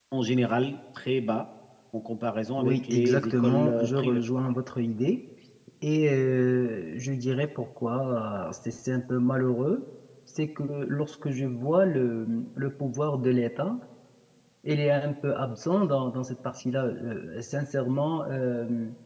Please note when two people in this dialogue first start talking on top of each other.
2.6 s

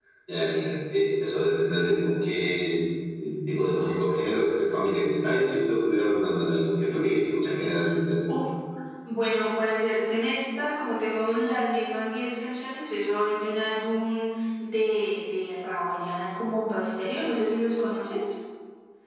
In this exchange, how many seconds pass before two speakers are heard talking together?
none

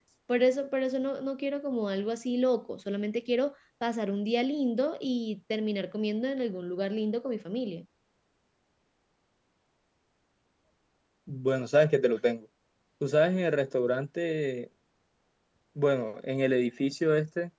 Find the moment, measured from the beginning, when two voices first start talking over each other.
none

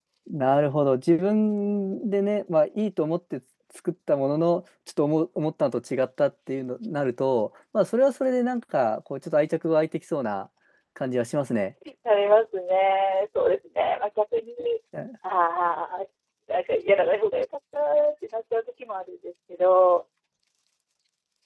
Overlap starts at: none

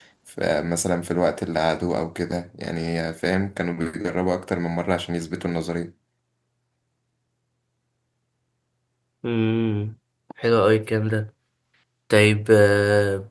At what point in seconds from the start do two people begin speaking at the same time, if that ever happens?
none

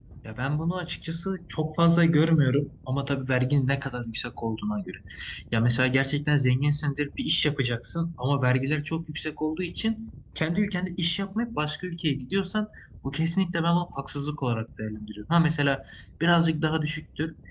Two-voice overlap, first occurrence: none

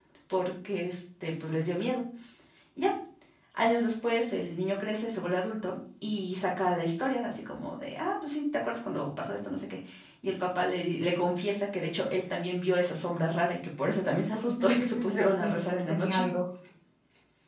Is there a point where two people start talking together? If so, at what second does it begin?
14.3 s

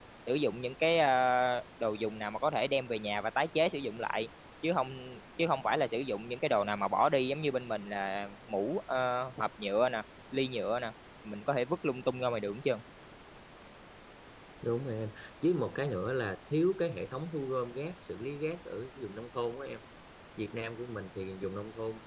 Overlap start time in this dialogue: none

